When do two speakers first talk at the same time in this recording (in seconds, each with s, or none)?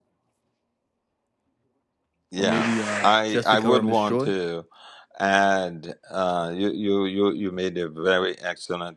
2.4 s